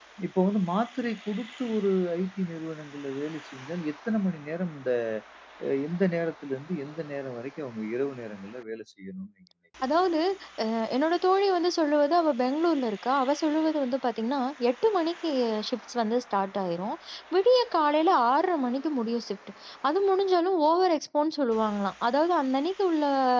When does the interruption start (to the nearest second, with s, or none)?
none